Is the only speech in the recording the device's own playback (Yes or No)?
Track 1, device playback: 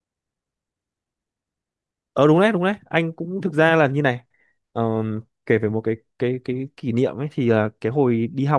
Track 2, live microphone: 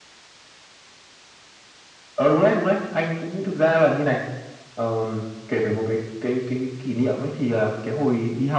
Yes